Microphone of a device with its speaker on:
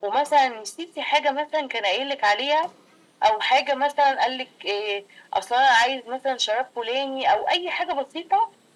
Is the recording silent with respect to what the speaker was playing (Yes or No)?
No